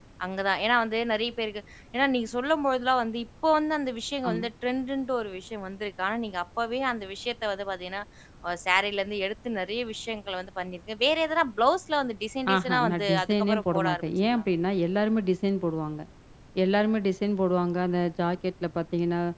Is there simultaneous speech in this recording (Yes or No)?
Yes